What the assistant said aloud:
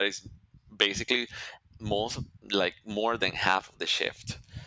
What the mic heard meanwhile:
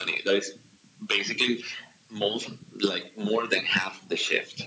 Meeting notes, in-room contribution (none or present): none